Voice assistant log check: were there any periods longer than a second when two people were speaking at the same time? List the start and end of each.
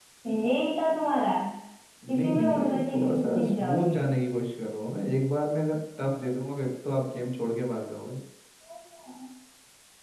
2.1-4.0

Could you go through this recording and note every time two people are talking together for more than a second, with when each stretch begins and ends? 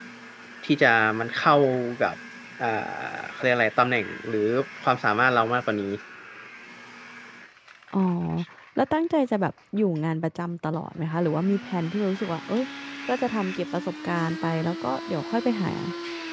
none

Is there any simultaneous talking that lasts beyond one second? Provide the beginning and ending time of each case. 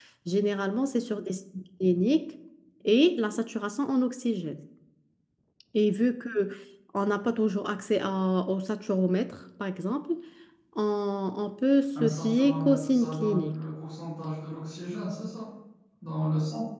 11.9-13.5

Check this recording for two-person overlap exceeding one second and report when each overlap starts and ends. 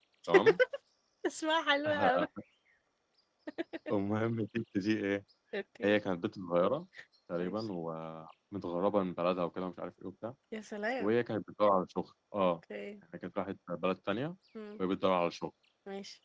none

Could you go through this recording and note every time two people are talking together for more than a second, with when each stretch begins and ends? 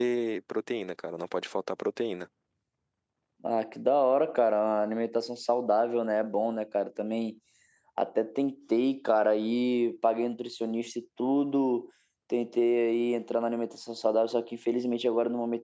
none

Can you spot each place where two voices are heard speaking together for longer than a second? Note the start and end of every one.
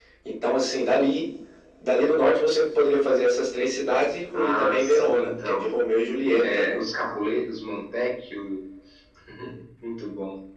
4.3-5.8

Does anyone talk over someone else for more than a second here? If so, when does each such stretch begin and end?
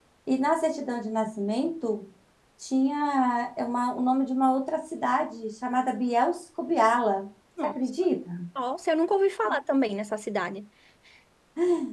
none

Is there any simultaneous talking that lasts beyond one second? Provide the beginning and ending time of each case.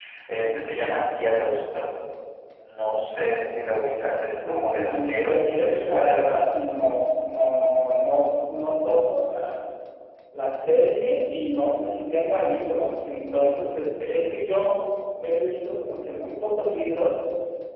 4.5-6.7

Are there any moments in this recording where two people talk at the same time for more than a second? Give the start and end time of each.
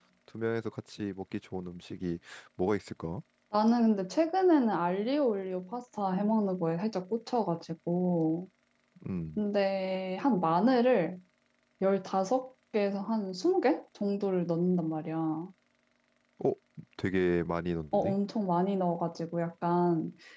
none

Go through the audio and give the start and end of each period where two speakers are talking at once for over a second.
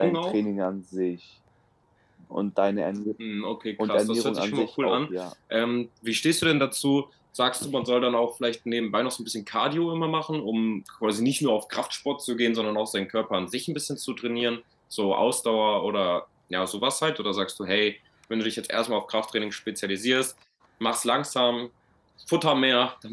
3.8-5.0

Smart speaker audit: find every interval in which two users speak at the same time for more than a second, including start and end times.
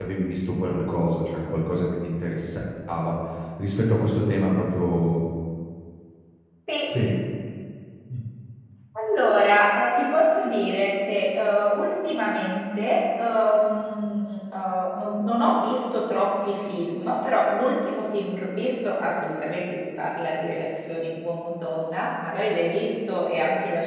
none

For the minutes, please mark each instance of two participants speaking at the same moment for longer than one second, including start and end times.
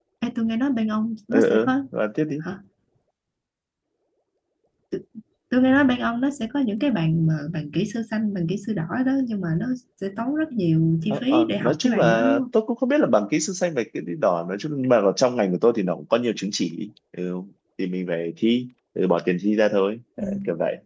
11.1-12.4

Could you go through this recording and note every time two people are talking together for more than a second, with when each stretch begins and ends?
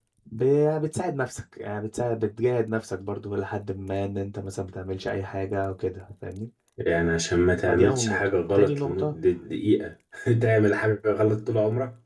7.7-9.2

